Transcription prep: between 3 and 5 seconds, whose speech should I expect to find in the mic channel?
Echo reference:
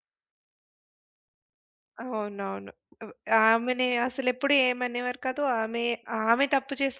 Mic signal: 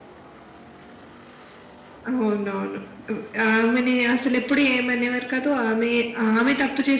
echo only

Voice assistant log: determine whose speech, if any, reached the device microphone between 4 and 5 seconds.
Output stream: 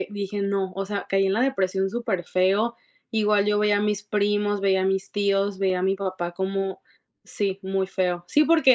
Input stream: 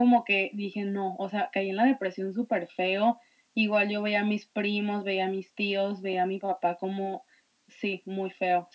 echo only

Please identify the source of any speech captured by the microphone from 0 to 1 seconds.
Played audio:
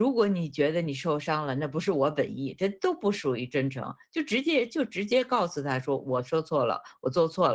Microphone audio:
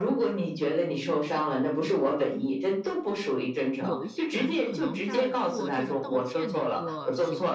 echo only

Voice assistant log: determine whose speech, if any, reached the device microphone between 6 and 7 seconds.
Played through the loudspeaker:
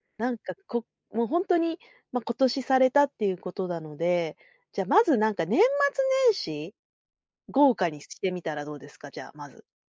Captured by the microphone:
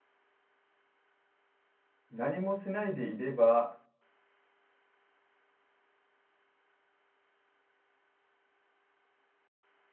neither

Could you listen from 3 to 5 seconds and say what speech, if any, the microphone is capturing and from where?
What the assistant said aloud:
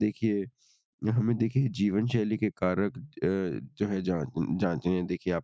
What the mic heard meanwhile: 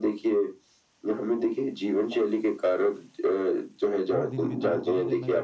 both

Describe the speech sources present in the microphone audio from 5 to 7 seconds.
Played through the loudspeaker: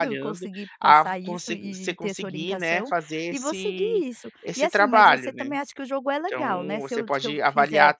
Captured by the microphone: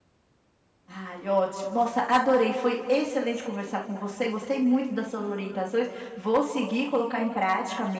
user only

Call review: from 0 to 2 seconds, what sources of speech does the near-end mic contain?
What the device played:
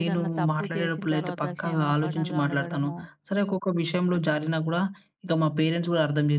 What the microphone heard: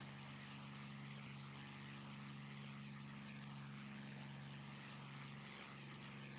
neither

